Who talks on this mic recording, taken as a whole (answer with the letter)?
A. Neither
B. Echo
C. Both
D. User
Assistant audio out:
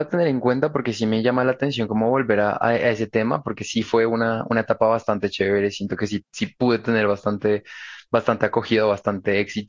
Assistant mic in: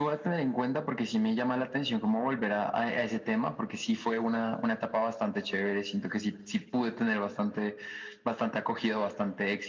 B